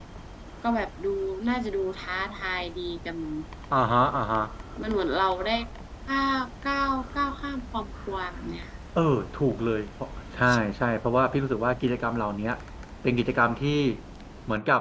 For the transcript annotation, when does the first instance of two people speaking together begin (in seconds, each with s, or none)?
none